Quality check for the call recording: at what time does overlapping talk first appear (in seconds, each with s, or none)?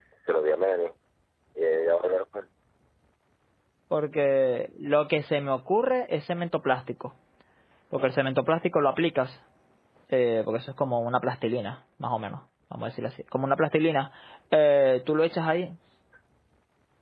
none